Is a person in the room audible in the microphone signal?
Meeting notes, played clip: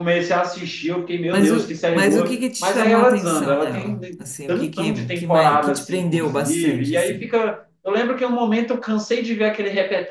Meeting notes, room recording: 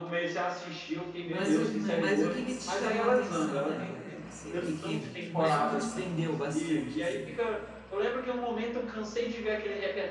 Yes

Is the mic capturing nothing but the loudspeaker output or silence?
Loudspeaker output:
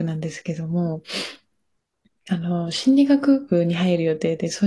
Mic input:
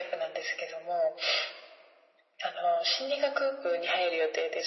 Yes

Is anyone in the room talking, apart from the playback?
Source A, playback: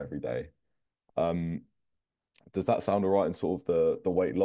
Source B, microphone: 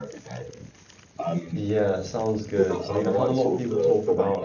Yes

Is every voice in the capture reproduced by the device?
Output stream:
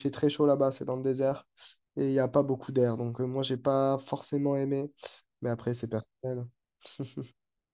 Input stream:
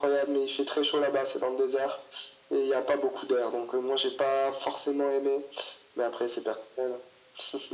Yes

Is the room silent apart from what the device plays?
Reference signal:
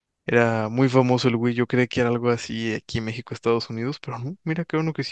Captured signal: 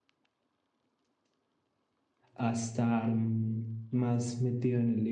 No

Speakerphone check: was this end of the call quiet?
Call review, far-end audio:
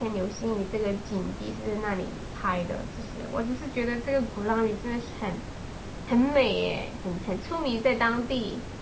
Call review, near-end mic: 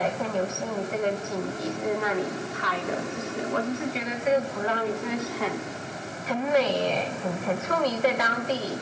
Yes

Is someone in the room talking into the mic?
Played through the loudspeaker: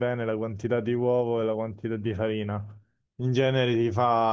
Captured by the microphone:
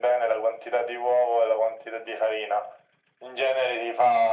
No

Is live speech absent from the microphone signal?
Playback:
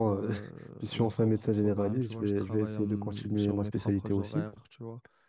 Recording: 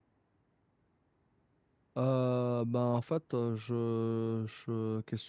No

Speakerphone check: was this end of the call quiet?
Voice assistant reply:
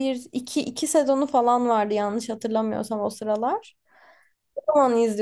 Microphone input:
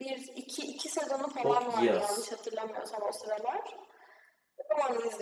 No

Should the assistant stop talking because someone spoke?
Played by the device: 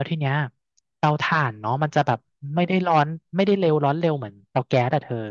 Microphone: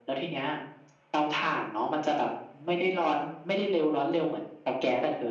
No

